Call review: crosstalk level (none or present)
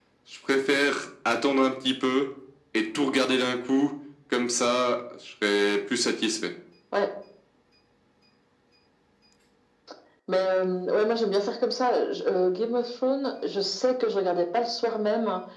none